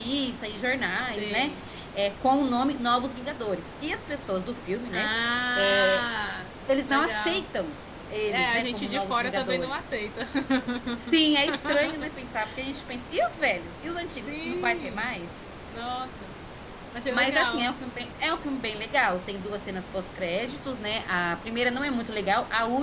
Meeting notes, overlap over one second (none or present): present